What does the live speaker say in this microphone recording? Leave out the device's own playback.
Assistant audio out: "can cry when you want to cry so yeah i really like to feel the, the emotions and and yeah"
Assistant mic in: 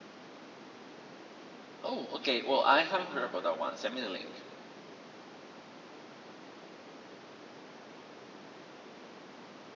Oh, okay. Well, I haven't heard about that one. Send me the link.

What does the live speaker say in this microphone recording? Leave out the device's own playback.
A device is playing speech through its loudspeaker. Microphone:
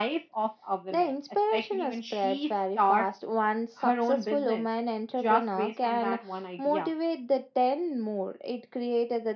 none

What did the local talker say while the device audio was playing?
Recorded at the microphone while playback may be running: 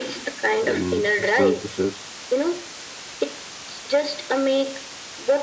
and external pressure

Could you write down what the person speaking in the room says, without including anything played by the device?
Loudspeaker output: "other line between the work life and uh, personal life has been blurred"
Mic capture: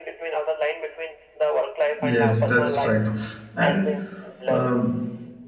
Yes, that's right. And um,

